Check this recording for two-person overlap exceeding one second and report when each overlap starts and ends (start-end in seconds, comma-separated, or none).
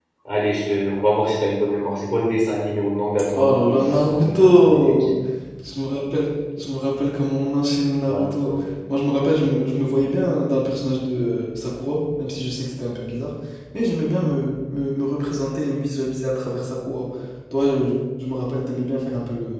3.4-5.2